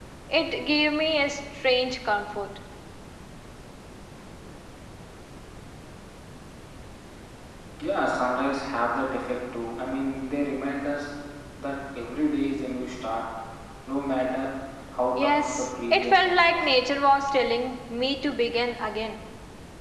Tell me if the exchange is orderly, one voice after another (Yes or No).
No